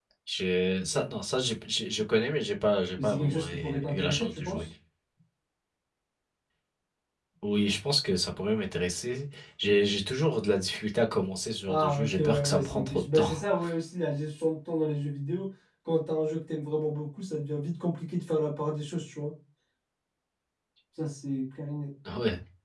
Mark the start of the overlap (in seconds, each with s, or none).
3.0 s